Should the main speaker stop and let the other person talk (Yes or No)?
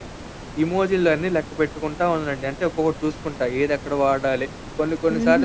Yes